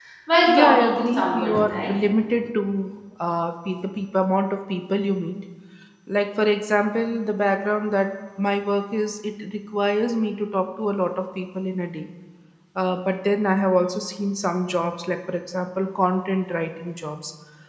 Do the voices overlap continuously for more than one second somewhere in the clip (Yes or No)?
Yes